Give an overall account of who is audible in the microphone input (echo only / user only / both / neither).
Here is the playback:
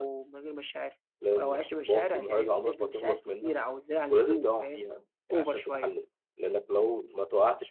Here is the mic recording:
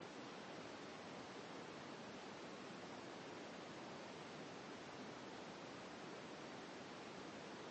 neither